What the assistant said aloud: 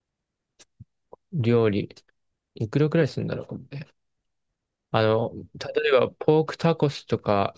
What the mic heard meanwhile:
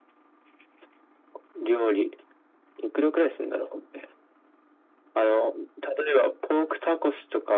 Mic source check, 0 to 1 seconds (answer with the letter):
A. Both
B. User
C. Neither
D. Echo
C